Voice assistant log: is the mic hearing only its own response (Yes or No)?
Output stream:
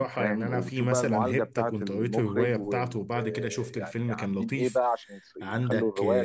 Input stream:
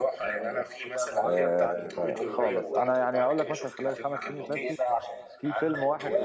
No